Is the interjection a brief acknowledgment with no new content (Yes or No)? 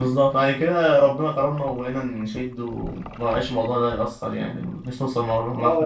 No